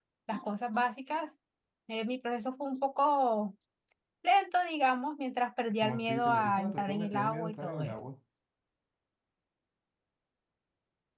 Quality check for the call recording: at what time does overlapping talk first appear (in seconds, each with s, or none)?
5.8 s